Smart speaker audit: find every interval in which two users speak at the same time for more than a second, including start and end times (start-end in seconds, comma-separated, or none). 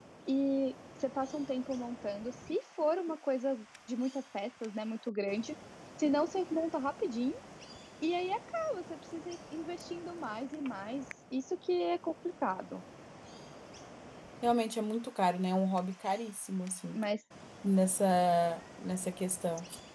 none